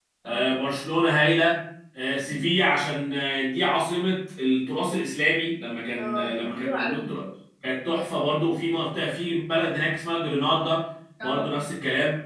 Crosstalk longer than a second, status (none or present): present